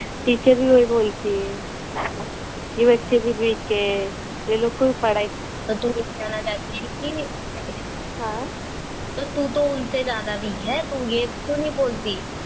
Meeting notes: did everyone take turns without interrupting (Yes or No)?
Yes